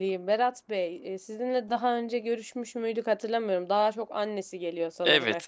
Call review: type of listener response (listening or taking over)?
taking over